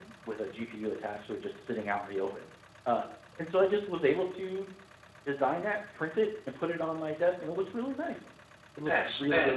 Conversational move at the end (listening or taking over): taking over